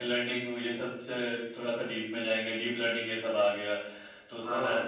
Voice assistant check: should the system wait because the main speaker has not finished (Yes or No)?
Yes